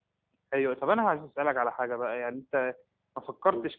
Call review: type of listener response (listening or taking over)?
listening